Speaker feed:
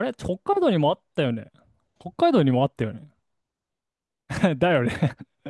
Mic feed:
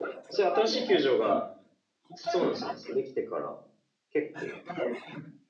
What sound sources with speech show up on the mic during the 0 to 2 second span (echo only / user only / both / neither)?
both